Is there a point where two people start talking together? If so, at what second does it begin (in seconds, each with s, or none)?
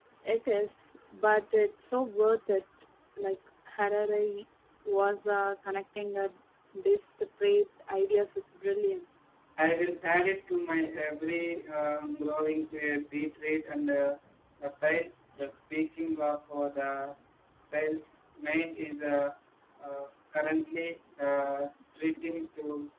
none